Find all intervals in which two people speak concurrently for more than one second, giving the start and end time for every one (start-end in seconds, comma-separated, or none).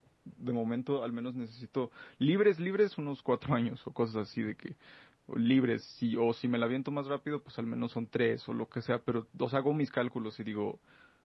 none